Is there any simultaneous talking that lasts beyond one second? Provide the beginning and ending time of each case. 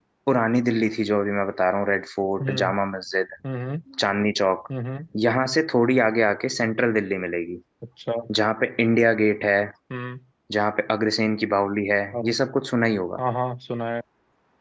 none

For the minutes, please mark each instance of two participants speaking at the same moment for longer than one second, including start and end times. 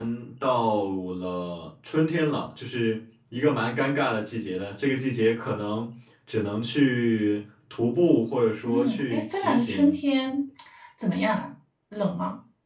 8.7-9.9

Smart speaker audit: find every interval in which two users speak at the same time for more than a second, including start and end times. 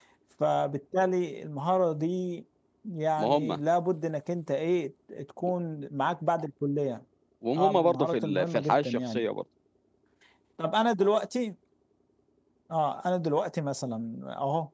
7.6-9.2

